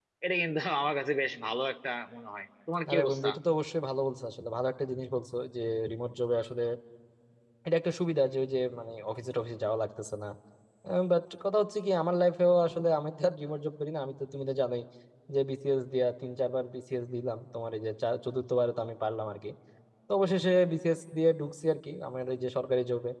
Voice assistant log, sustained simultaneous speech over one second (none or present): none